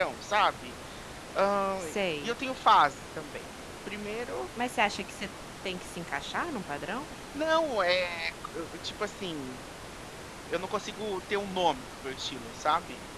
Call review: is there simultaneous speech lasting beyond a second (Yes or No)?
No